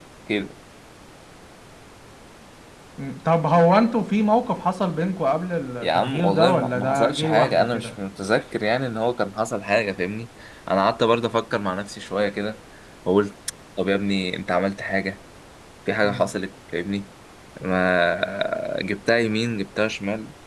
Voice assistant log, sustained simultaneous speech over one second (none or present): present